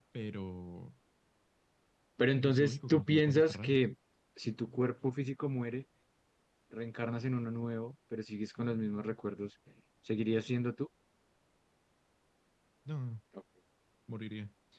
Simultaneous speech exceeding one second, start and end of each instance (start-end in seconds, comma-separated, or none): 2.4-3.8